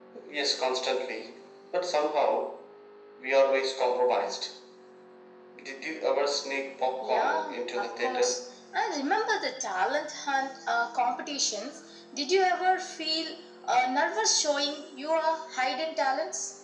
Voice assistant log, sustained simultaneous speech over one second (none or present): present